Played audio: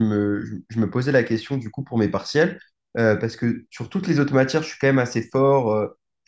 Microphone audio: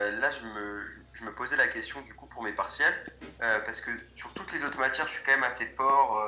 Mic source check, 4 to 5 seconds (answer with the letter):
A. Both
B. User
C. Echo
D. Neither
C